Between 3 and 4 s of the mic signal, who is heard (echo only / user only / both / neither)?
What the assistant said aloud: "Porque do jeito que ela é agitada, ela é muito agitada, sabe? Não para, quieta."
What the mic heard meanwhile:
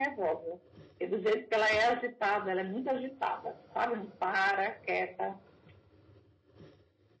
echo only